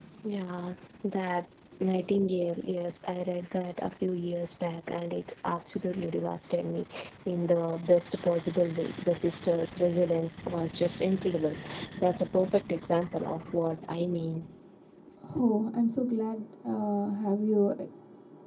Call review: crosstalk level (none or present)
none